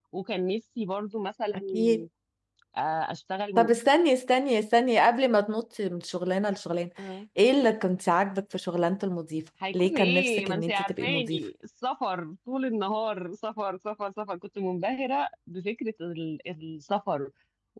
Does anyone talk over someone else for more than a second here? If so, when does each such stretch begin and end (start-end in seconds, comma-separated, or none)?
9.7-11.4